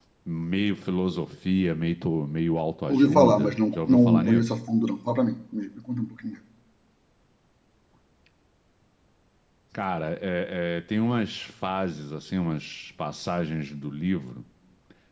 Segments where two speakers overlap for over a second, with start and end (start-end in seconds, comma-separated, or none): 2.9-4.4